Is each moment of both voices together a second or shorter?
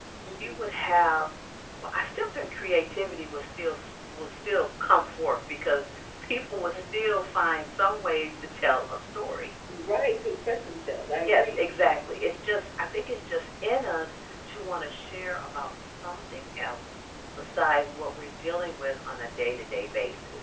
Yes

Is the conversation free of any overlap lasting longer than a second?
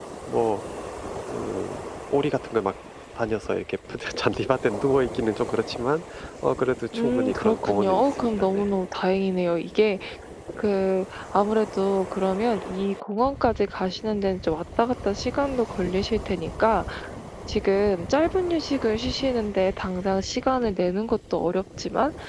No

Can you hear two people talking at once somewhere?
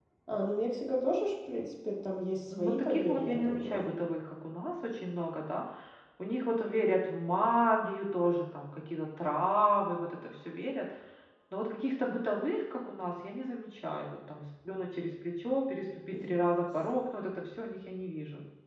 Yes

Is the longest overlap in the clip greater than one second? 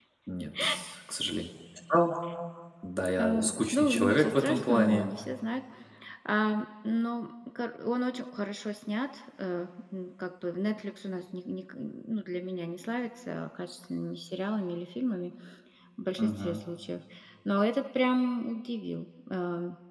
Yes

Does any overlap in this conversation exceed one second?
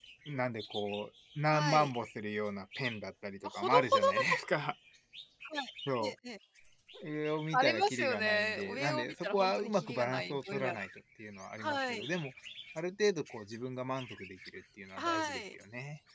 Yes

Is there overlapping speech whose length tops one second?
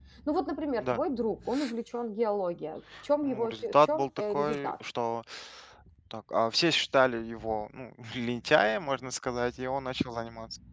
Yes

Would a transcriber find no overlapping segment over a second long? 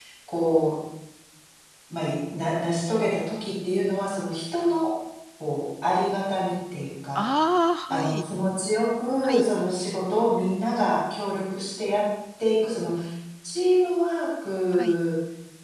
Yes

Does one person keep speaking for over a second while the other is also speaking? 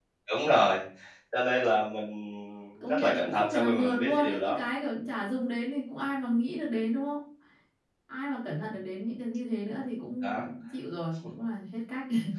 Yes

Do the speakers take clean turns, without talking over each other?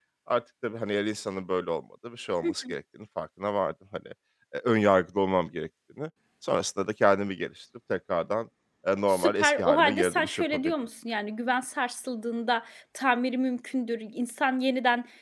No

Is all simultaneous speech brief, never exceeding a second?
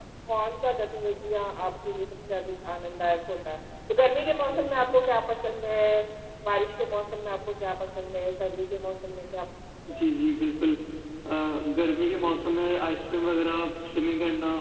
Yes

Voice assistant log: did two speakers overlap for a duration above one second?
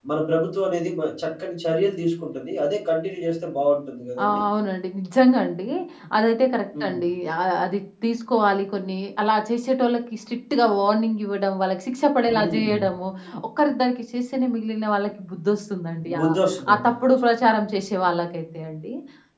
No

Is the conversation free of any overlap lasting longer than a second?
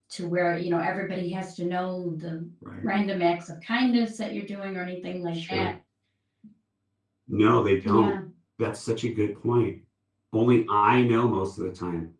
Yes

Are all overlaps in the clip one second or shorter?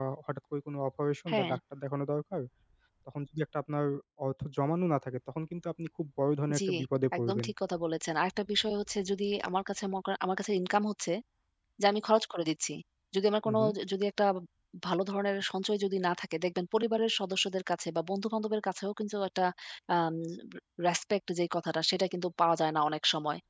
Yes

